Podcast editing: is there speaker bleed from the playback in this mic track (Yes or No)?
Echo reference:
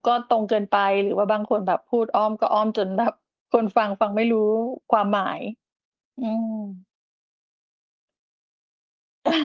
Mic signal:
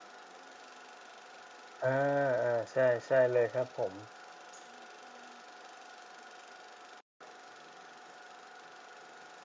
No